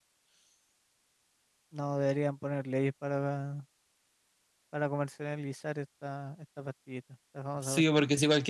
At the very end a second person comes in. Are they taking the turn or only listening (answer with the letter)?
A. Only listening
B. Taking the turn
B